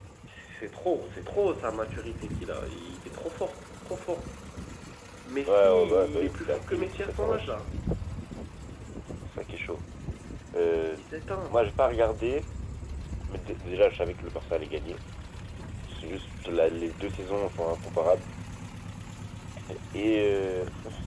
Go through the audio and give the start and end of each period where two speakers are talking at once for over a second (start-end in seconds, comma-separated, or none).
5.5-7.5